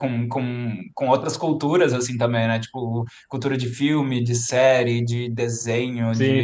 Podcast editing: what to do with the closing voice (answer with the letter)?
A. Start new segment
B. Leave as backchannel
A